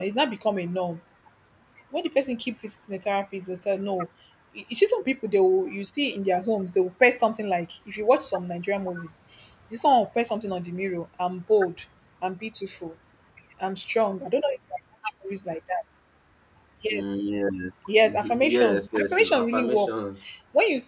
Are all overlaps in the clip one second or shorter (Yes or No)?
No